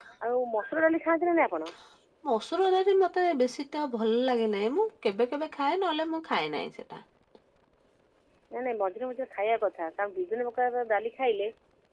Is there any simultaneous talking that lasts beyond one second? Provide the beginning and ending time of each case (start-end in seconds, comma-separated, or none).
none